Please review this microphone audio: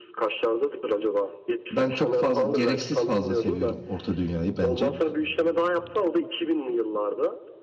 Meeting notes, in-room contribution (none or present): present